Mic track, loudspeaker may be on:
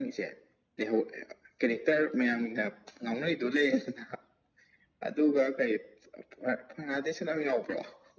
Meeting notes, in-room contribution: none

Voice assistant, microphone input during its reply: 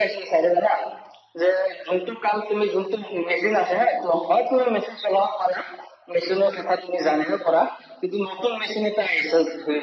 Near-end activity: none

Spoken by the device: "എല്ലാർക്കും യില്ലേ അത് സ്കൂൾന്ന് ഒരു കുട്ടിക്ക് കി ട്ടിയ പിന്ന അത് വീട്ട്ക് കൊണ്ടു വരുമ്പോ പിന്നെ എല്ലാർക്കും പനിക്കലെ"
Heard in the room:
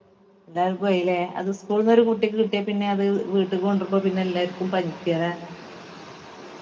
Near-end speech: none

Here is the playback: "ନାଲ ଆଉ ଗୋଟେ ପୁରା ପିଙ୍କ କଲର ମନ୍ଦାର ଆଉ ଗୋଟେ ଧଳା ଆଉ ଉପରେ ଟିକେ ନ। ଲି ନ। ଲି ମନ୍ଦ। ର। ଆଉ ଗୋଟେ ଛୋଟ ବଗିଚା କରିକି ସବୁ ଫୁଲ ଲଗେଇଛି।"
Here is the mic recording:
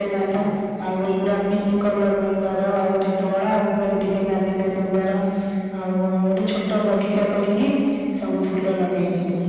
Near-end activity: none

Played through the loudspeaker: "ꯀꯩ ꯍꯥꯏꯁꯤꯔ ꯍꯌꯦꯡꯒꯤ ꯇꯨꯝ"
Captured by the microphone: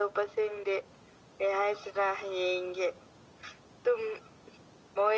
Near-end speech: none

